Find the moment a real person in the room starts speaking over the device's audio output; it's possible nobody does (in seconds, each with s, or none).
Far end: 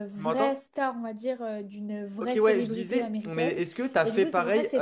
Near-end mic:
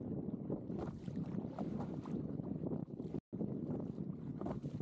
none